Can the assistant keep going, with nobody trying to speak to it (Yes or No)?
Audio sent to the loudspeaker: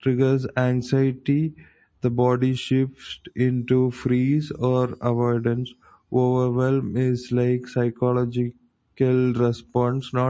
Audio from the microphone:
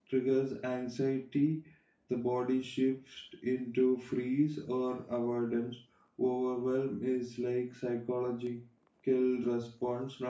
Yes